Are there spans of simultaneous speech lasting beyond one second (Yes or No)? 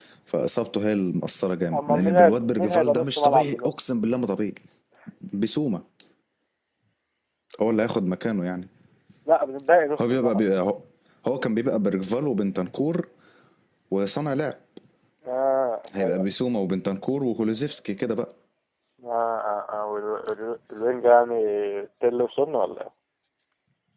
Yes